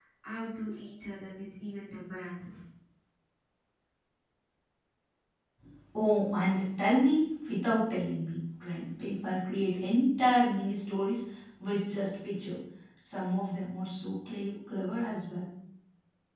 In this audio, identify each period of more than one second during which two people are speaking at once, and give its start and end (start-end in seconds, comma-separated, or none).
none